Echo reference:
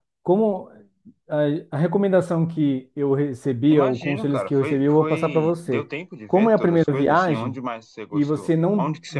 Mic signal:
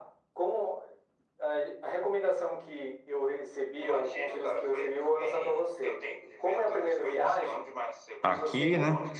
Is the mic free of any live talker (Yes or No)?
No